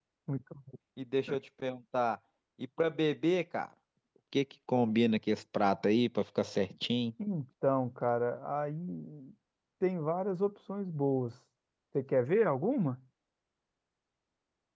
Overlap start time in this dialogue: none

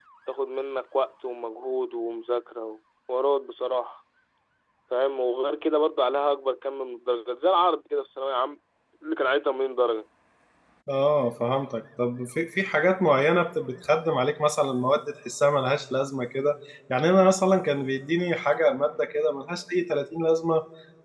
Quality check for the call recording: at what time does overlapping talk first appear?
none

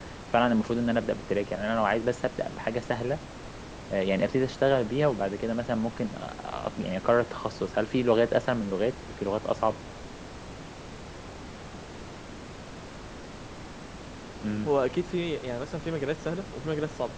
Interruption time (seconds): none

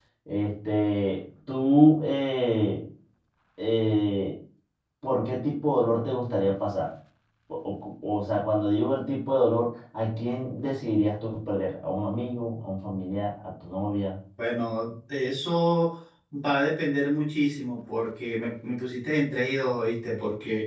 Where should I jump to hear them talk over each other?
none

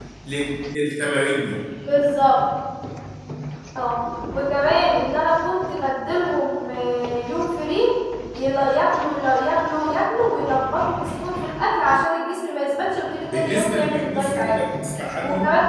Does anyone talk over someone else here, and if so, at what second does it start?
13 s

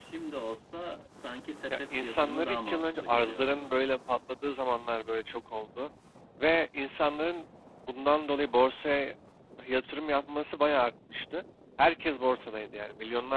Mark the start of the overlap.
2 s

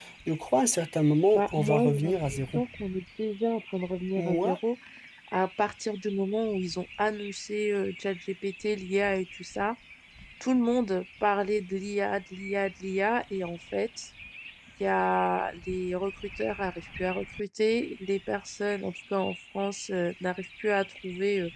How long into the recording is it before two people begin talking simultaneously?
1 s

